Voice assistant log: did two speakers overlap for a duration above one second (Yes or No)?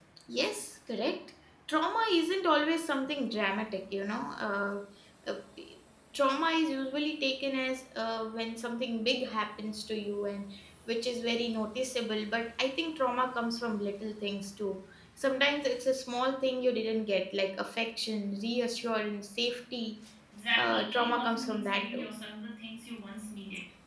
Yes